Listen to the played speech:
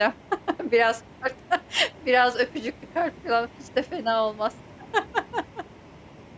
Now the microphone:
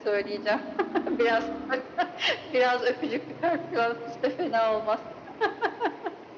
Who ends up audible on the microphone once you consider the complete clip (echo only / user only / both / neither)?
echo only